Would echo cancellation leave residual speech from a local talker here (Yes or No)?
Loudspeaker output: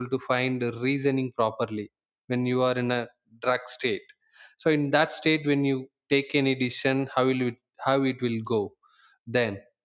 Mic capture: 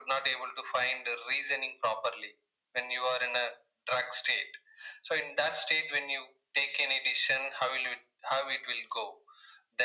No